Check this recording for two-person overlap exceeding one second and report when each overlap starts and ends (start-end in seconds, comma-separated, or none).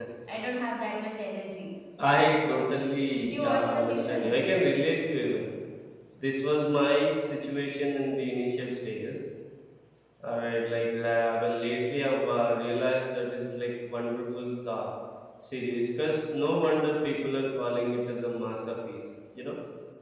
3.2-4.4